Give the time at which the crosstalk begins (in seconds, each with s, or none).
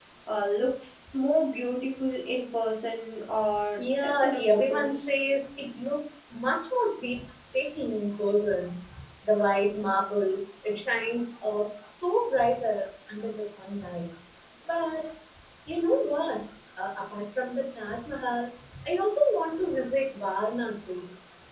3.8 s